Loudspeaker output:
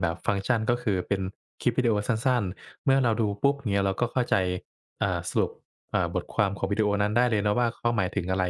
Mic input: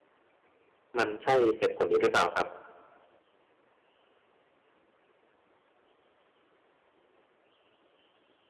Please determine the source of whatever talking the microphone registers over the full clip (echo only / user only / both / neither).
user only